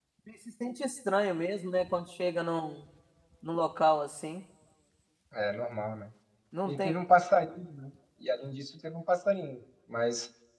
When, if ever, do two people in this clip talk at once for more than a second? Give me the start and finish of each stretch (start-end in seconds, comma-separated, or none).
none